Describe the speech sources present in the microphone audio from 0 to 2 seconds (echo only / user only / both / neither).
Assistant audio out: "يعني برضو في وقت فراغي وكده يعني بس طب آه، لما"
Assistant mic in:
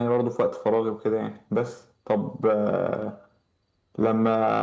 echo only